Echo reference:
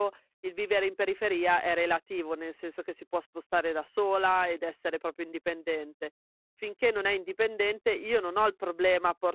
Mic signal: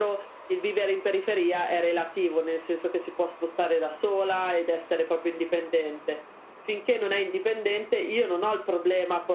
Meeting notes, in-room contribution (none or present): none